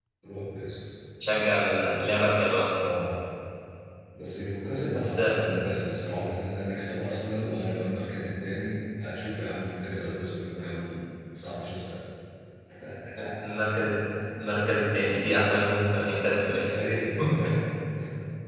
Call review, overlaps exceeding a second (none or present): none